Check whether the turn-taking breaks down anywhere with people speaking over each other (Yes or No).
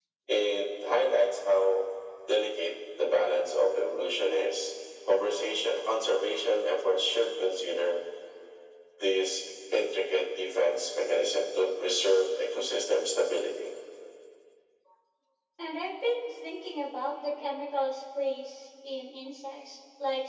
No